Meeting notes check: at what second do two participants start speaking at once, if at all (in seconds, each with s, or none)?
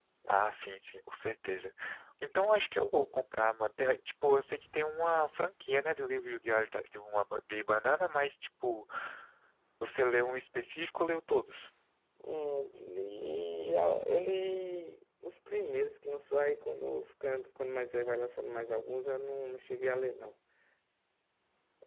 none